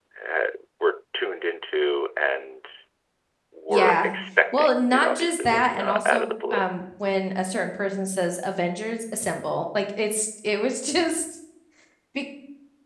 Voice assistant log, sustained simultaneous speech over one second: present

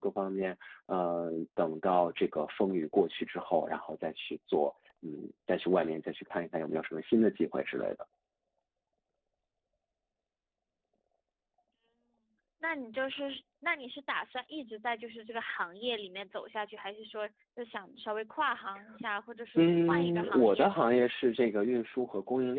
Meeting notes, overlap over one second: present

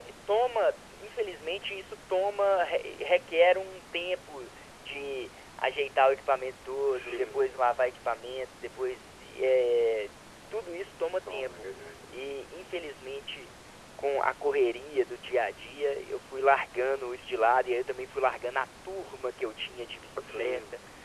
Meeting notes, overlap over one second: none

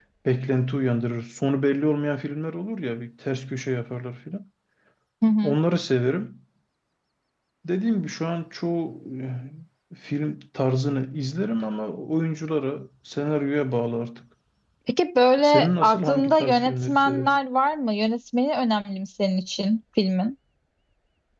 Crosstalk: present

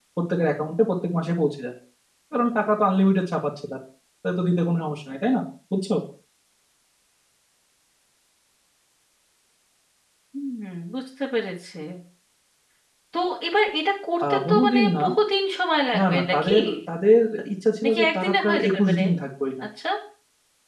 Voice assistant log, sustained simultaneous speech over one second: present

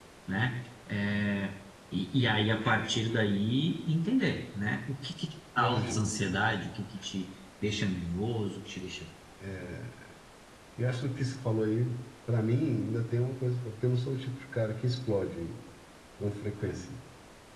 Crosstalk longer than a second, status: none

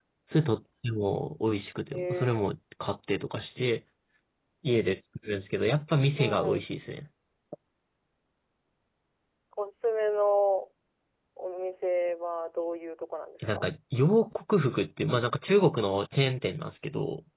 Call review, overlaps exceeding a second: none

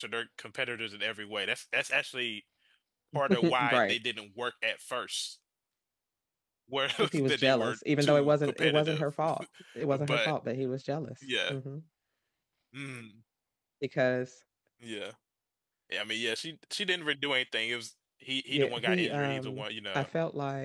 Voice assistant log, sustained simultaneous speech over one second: present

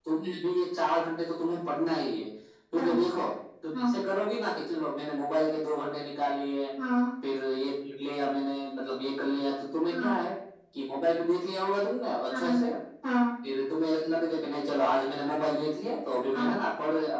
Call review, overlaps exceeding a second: none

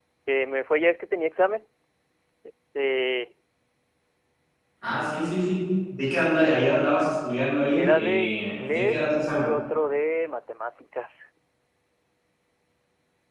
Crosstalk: present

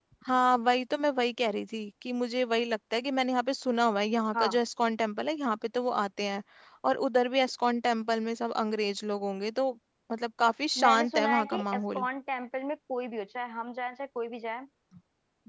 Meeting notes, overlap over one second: present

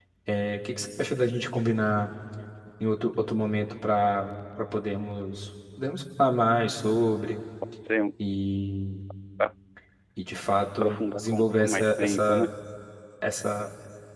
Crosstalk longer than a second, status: present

